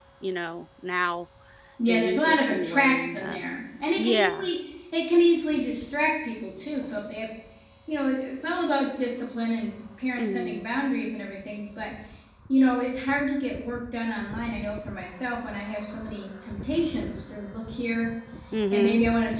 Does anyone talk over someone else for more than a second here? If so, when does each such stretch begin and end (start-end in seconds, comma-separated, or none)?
1.9-3.4